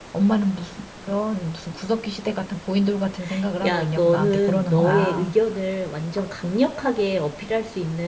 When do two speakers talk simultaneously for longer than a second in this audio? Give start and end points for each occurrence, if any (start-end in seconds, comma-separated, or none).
3.6-5.3